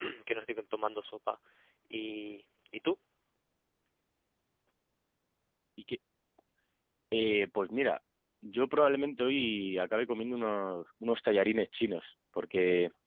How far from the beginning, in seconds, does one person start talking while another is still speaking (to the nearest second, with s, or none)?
none